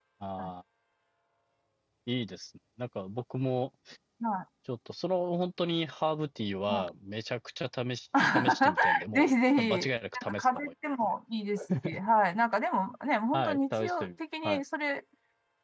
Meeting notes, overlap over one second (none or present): present